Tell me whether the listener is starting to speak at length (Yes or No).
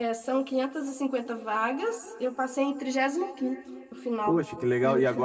Yes